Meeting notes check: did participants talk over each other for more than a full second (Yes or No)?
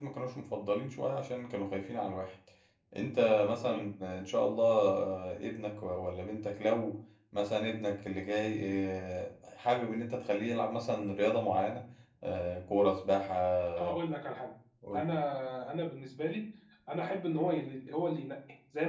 No